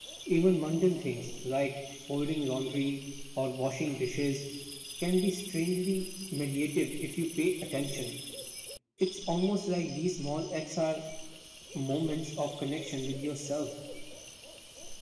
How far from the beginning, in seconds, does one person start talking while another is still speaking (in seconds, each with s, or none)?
none